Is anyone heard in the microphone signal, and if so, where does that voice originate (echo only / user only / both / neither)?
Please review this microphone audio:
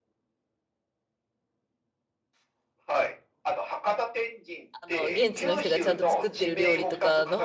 both